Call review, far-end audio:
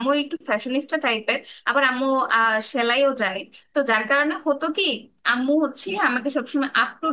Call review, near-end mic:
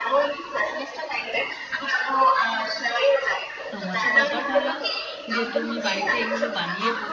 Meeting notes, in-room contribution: present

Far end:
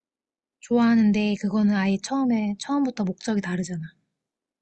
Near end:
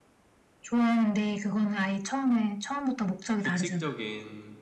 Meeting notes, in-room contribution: present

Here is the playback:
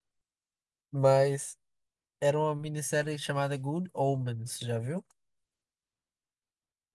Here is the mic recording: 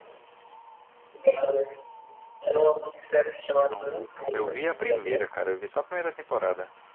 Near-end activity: present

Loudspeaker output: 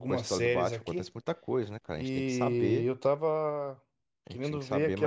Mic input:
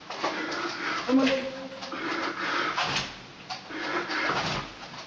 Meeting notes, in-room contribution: present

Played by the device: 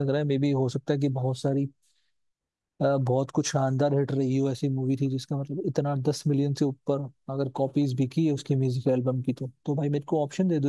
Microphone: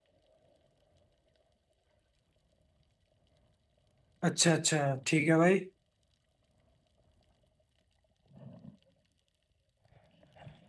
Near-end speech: present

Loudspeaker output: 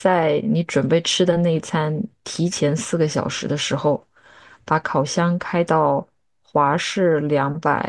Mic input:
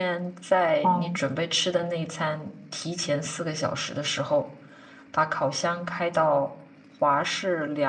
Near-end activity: present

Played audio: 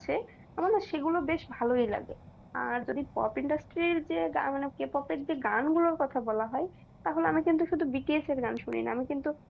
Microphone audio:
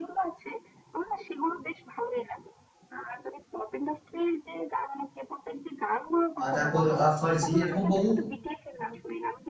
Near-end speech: present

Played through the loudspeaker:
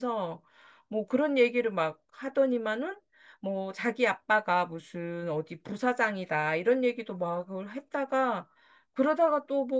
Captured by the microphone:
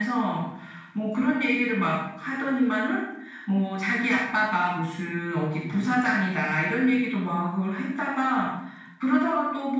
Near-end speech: none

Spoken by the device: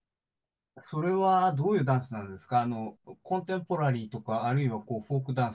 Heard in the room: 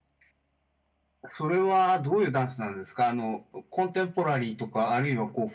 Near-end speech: none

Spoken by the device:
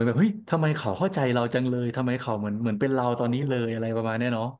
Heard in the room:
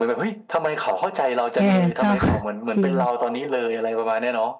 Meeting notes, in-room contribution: present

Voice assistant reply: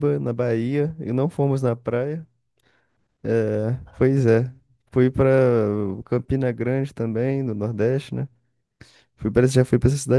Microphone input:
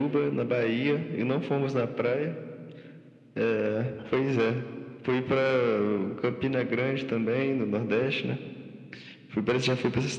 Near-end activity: none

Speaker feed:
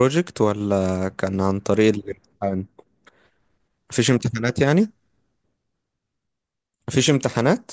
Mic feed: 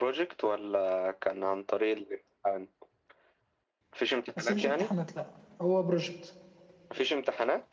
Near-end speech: present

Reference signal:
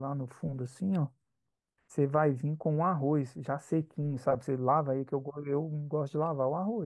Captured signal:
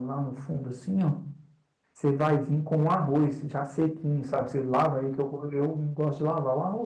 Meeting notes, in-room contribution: none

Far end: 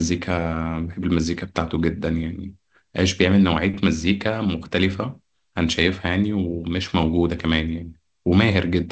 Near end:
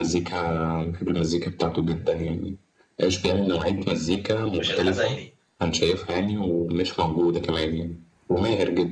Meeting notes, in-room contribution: present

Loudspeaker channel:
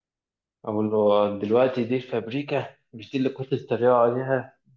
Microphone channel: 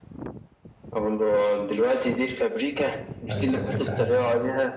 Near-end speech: present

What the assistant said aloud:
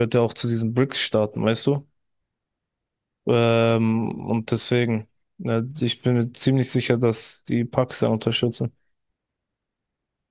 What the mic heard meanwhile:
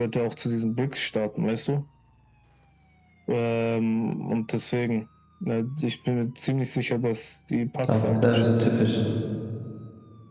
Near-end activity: present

